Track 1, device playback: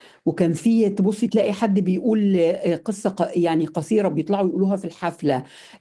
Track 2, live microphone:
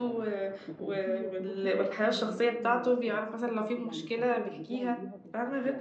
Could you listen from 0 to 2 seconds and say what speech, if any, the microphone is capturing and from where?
both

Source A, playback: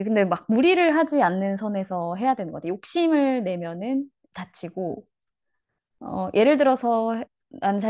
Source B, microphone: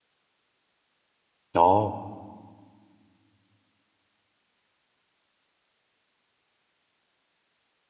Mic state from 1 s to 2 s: user only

